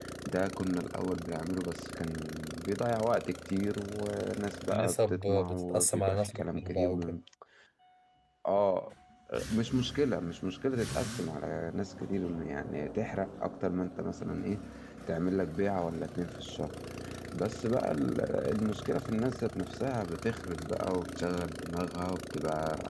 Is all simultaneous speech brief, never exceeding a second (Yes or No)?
No